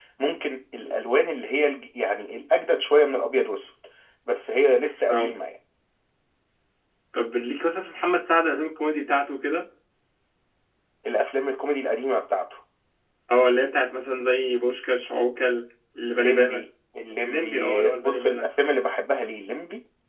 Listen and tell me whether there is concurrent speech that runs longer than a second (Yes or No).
Yes